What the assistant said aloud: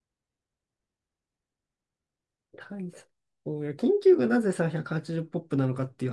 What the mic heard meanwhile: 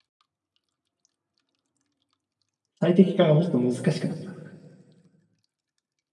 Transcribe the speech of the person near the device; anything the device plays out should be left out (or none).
最適化がもっと難しくなった